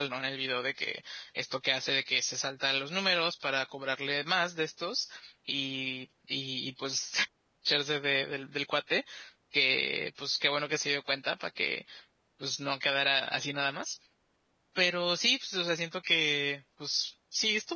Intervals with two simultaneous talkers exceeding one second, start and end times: none

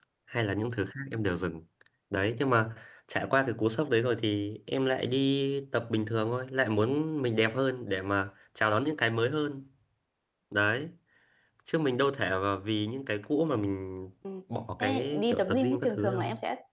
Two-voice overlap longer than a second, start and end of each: 14.8-16.2

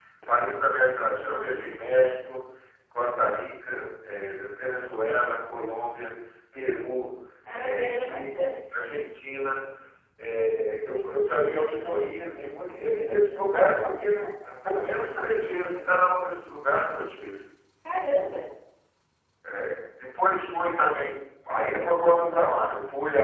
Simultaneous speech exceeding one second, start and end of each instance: 7.5-8.8

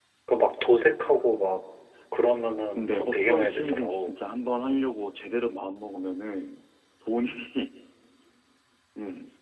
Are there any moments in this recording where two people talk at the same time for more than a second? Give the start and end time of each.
2.8-4.1

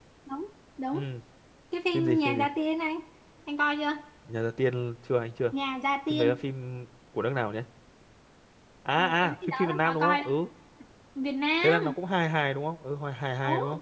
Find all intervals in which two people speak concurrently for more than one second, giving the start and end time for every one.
9.0-10.3

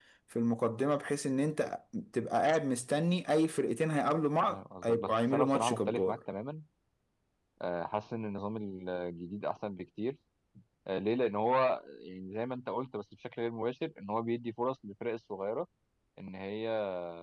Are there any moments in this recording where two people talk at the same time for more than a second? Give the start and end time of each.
4.5-6.2

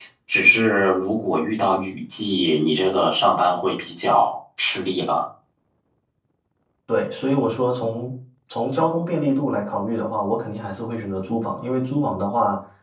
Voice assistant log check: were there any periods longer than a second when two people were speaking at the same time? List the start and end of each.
none

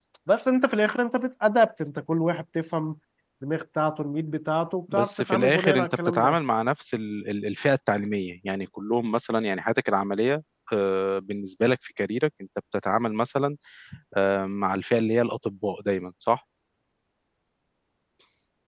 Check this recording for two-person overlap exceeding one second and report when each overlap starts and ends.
4.9-6.4

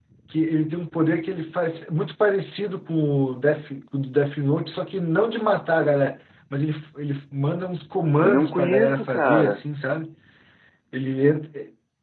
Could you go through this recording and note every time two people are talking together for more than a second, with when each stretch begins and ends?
8.2-9.6

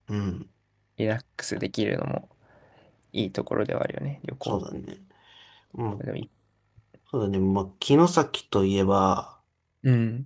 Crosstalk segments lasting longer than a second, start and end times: none

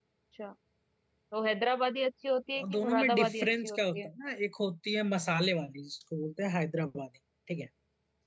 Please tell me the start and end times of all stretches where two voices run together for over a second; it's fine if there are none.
2.6-4.1

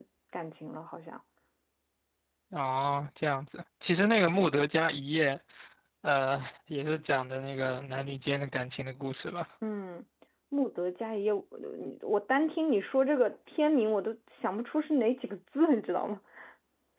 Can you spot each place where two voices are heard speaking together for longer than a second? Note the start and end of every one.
none

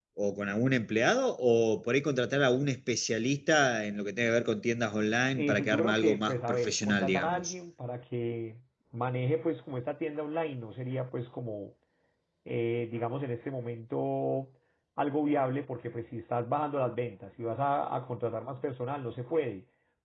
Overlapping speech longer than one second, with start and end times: 5.4-7.5

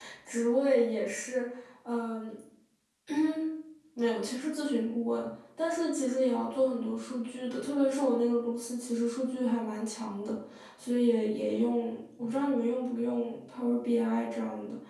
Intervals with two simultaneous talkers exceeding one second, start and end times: none

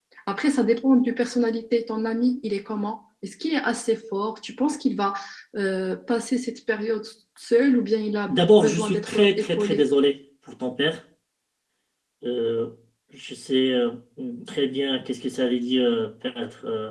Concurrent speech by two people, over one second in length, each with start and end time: 8.3-9.8

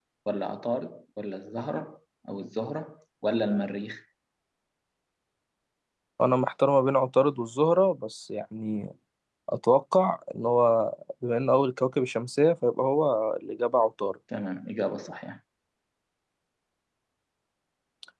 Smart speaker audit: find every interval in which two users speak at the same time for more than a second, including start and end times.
none

